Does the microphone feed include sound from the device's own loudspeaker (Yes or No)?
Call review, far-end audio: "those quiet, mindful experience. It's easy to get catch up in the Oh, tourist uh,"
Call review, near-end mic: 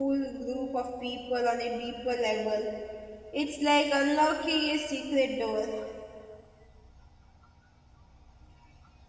No